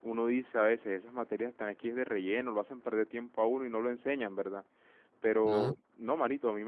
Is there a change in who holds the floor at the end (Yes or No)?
No